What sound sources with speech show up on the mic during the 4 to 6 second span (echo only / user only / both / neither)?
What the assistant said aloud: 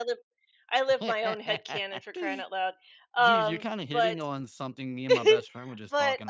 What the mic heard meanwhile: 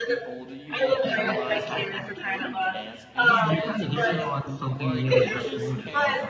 both